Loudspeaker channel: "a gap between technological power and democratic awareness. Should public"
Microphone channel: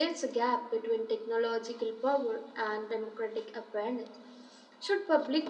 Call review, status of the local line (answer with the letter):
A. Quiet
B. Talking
A